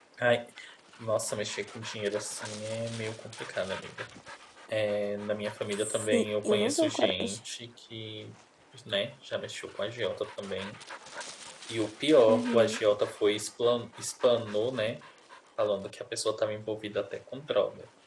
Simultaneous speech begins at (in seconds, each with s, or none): 6.0 s